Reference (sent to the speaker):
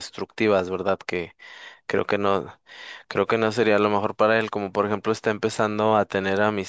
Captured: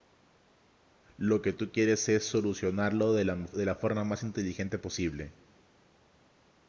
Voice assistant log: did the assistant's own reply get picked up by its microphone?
No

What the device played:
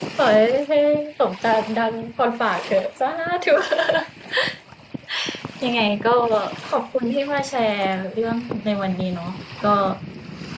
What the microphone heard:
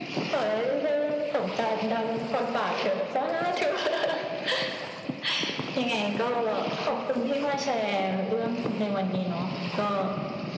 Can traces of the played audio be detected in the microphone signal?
Yes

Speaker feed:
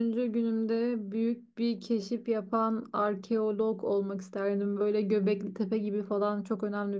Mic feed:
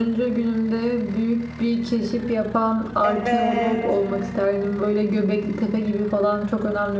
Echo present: Yes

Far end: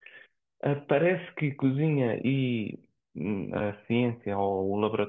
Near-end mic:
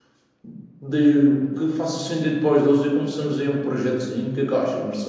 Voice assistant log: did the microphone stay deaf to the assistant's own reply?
Yes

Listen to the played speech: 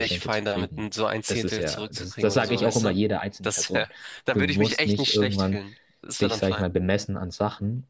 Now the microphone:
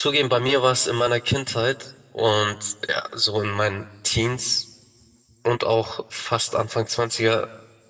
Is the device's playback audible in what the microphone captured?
No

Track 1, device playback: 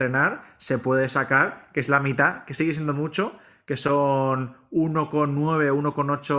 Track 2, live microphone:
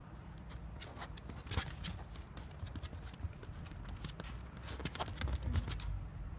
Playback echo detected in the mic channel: No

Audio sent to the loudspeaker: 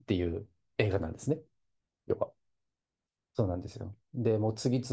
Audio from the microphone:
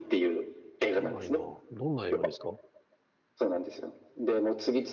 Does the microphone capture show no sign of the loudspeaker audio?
No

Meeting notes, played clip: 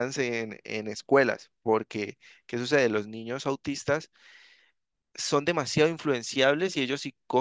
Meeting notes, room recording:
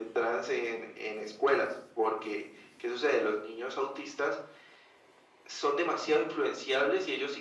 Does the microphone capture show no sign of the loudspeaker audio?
No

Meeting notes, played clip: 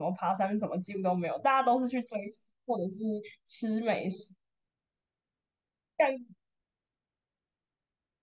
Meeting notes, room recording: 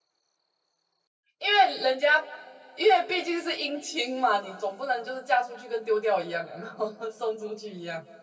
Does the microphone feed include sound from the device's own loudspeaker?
No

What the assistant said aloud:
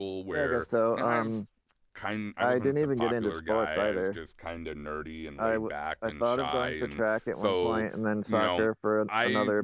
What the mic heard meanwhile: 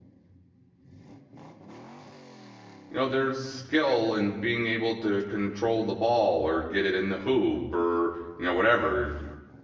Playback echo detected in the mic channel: No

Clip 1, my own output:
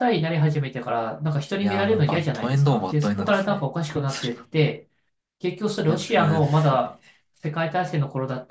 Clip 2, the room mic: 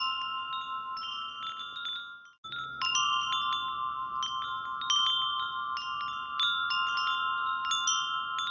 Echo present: No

